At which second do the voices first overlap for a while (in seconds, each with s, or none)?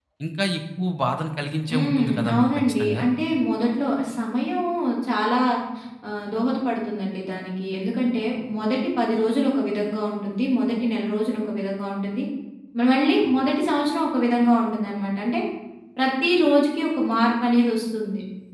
1.7 s